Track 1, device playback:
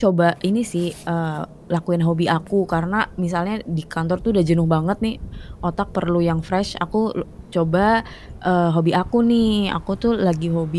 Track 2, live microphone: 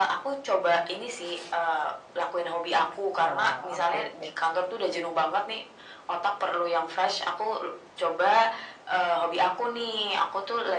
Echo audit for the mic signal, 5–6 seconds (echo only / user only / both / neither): echo only